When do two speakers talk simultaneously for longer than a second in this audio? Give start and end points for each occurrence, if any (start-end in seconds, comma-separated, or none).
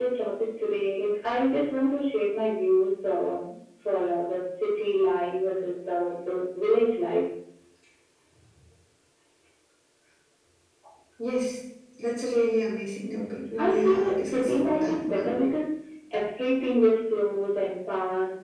13.0-15.3